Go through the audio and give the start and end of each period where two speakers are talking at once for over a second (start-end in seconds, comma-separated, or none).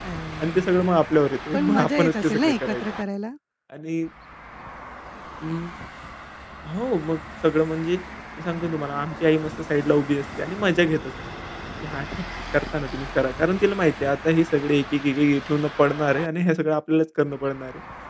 1.5-2.8